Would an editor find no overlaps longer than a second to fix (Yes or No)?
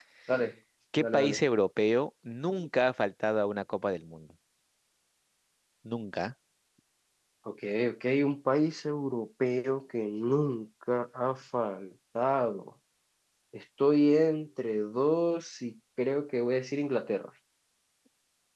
Yes